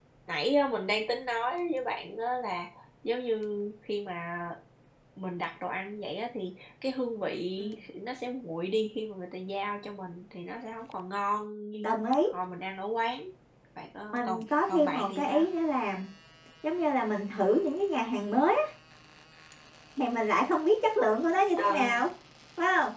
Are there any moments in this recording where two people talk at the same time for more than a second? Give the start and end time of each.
14.1-15.4

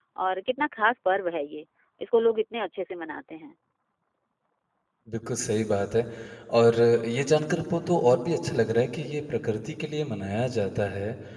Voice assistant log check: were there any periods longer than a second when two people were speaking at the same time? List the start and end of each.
none

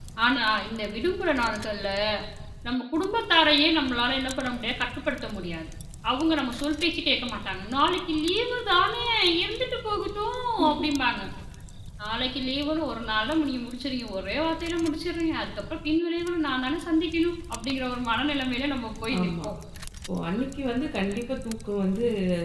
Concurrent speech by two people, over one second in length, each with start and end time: none

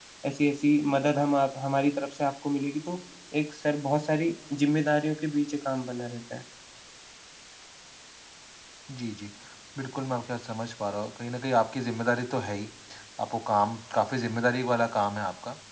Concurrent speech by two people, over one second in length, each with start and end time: none

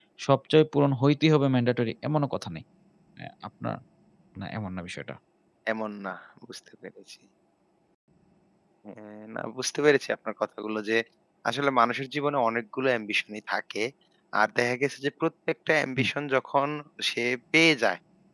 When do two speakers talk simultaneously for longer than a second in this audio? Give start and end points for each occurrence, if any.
none

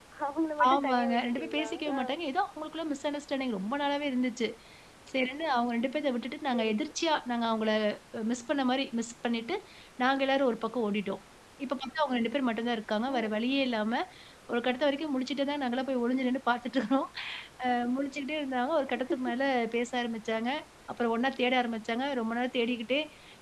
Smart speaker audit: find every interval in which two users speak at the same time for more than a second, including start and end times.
0.7-2.0

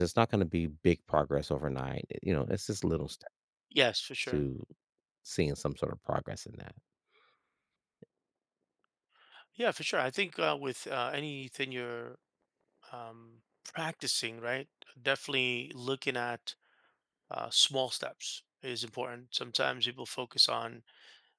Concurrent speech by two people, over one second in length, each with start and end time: none

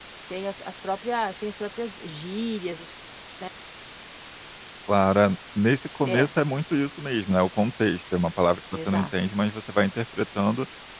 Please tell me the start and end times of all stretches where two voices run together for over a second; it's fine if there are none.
none

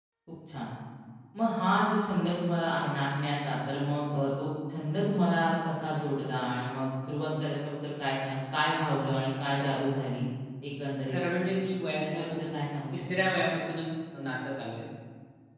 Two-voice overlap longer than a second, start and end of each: none

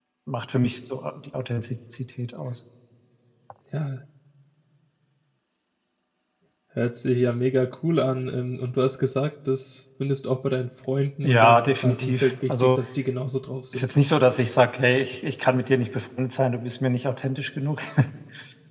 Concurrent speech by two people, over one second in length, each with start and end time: 11.2-12.8

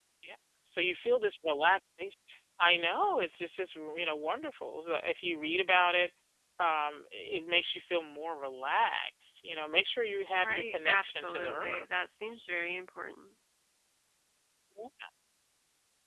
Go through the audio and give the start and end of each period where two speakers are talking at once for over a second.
10.4-11.8

